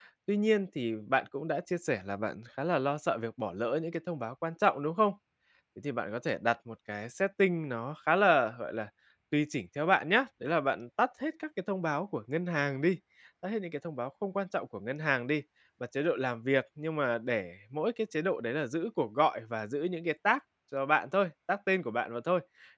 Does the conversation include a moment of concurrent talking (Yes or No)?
No